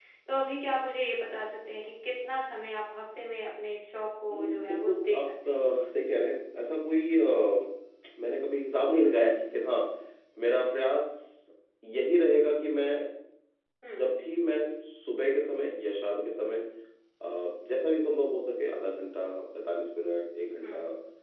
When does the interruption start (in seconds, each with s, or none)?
4.3 s